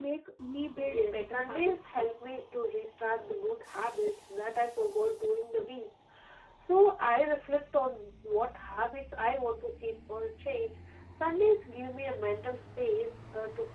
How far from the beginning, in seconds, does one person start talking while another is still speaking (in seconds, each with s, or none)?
0.8 s